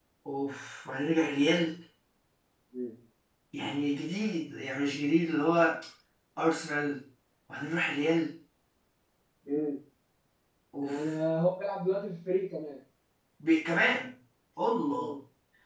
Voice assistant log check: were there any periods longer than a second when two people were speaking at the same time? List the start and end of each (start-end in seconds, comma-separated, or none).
none